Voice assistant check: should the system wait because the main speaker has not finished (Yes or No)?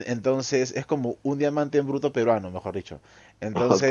Yes